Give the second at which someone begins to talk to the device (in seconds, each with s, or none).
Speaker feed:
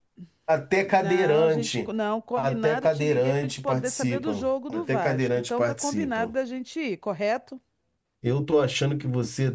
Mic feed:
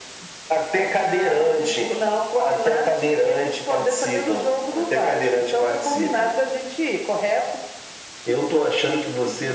none